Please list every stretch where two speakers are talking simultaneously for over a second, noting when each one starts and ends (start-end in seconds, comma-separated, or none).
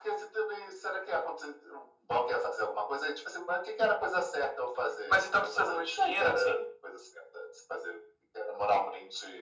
5.1-6.6